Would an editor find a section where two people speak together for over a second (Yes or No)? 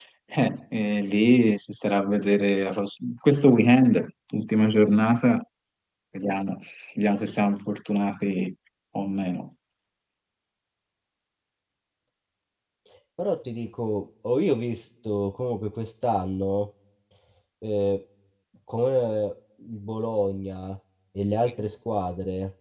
No